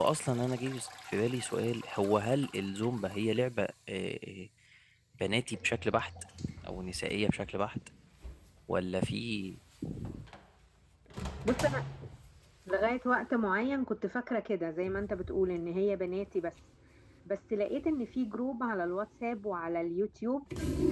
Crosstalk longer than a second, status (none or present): none